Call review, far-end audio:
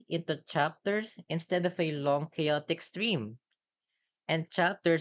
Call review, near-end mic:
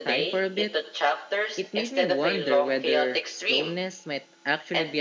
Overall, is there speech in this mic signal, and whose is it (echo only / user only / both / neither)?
both